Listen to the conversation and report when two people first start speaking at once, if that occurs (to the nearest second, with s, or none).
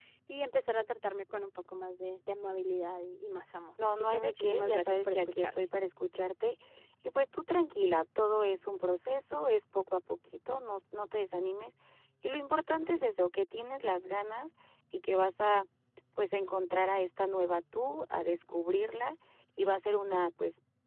4 s